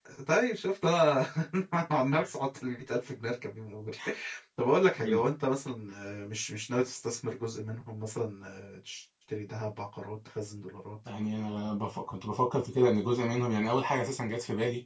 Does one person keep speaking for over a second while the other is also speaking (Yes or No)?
No